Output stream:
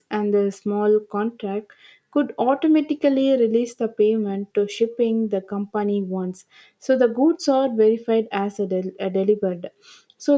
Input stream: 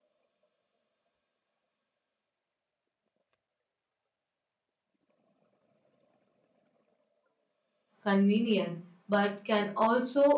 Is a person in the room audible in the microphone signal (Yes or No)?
Yes